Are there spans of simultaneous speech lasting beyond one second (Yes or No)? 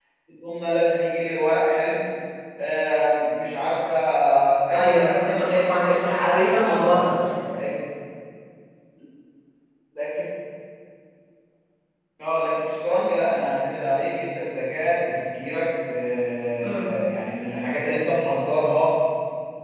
Yes